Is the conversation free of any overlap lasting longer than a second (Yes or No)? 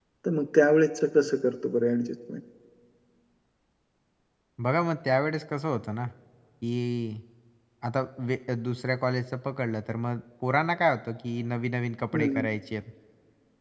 Yes